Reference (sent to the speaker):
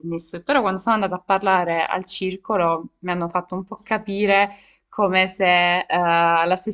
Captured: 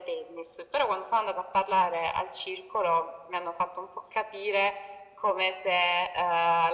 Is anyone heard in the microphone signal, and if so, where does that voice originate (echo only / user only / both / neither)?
echo only